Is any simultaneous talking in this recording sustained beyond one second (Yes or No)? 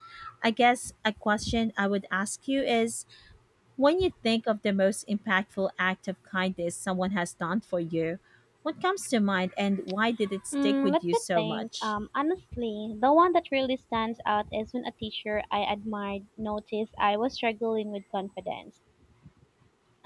Yes